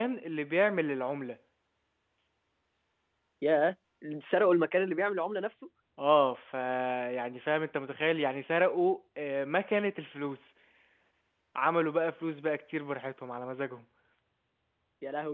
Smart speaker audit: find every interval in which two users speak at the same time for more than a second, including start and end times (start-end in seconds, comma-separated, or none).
none